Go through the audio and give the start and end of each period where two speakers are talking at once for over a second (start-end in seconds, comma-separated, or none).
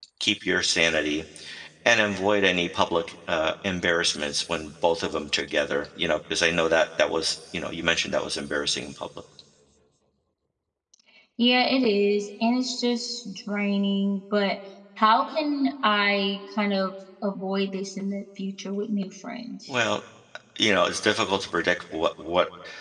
none